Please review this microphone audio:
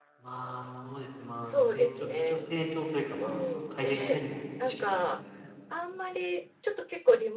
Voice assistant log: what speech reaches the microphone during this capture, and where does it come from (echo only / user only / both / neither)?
both